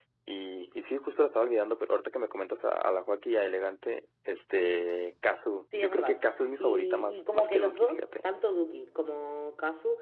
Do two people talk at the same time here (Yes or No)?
Yes